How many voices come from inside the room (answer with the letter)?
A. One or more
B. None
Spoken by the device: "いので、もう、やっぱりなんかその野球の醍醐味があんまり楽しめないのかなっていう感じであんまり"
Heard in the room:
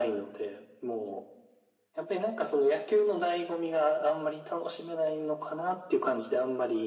B